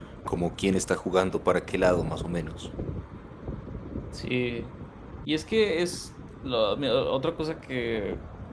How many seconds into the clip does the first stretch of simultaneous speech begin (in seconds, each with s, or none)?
none